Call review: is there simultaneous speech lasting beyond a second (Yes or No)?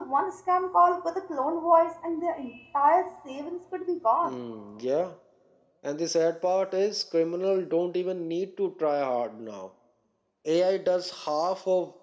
No